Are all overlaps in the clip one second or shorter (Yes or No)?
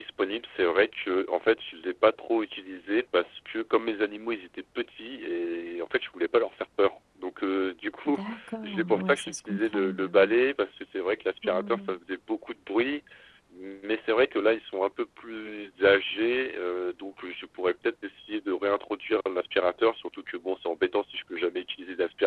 No